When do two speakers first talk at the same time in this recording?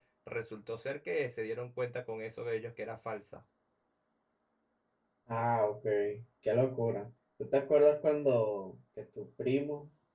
none

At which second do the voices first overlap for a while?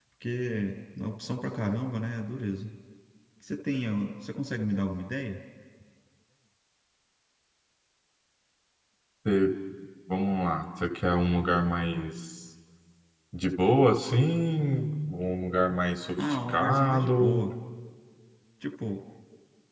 16.2 s

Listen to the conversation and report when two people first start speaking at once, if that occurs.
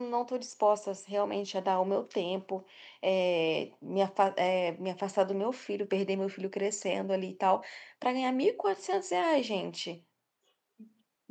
none

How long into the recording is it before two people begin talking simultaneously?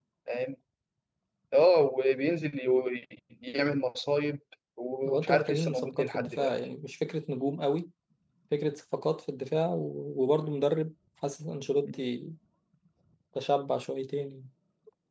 5.0 s

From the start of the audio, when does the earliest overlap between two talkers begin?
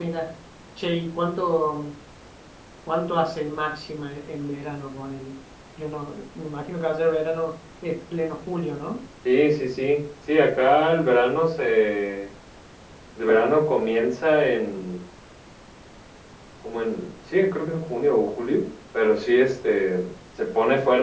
none

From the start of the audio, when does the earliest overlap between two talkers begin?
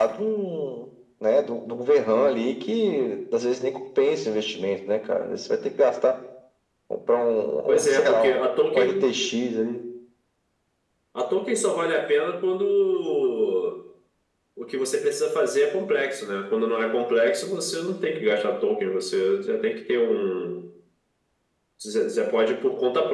7.7 s

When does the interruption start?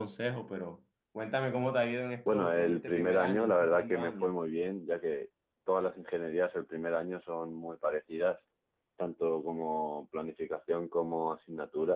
2.3 s

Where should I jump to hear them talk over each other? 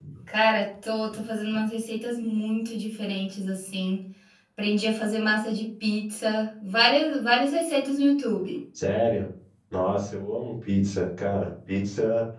none

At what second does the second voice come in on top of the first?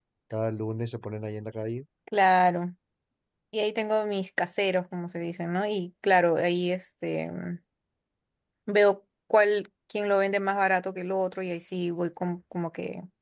none

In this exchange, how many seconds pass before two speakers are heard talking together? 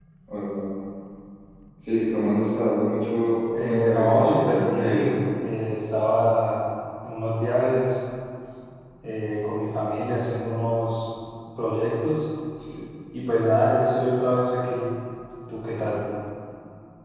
3.5 s

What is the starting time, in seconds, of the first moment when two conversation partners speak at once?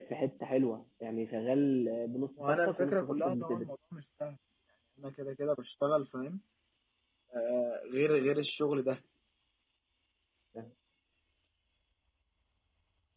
2.4 s

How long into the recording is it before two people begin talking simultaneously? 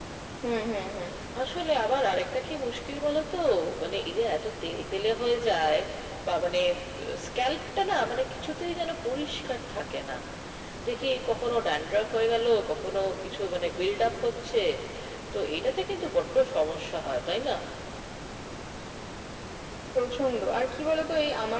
none

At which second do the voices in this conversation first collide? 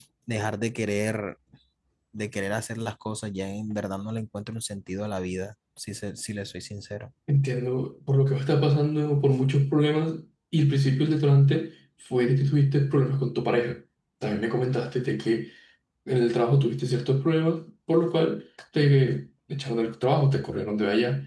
none

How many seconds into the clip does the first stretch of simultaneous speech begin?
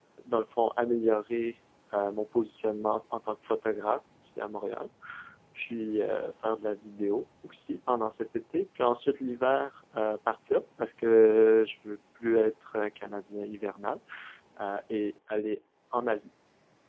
none

